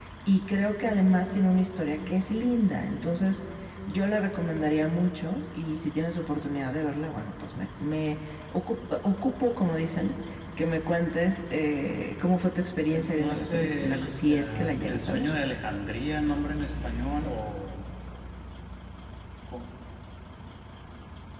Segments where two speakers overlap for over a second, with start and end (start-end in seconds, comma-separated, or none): 12.9-15.3